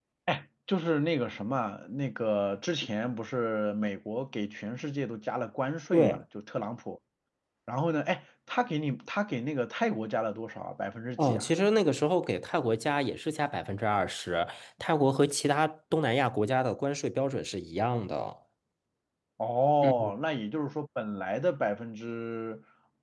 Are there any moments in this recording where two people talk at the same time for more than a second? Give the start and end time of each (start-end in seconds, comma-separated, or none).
none